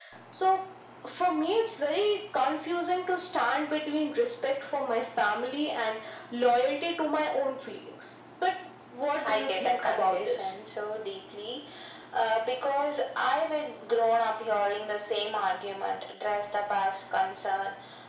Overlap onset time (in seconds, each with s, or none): 9.2 s